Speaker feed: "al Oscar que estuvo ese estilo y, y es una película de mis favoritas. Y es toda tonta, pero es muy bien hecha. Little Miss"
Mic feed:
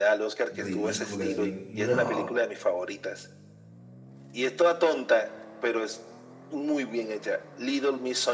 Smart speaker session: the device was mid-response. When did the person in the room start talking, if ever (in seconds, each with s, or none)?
0.5 s